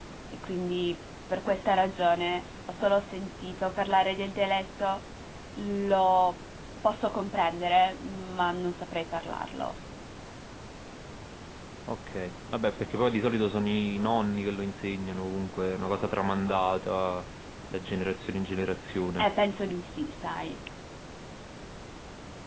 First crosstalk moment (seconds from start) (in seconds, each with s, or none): none